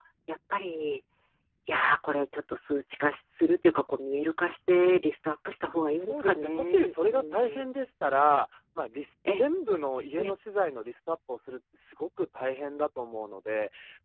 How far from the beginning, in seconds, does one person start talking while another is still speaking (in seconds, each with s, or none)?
5.9 s